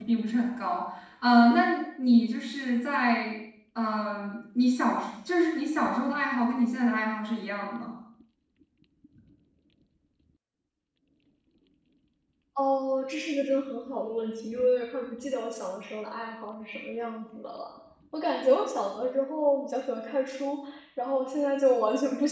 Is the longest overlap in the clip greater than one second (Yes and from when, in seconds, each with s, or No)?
No